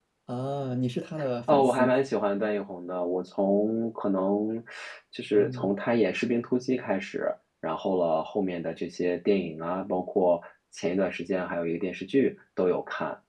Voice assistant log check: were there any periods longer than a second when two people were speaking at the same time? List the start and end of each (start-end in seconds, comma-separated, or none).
none